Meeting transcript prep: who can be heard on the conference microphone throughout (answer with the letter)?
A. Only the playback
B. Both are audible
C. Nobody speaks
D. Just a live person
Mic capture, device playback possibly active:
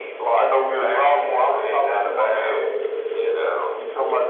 A